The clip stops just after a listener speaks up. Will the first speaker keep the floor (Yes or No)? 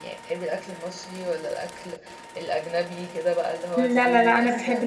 No